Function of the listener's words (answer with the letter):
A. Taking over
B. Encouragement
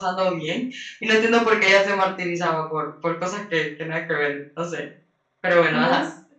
A